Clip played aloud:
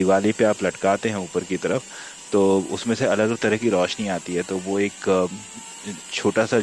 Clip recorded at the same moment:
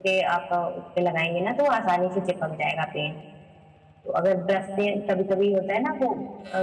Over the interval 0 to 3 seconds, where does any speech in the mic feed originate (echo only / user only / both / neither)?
user only